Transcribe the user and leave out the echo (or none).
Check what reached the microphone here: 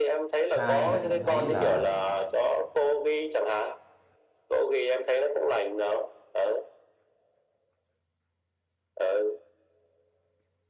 hai là cảm thấy là